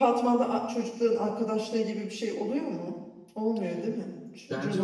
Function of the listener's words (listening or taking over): taking over